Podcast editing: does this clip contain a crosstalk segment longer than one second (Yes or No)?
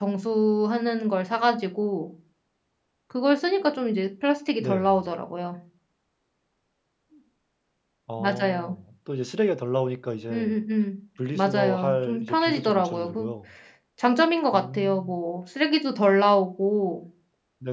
Yes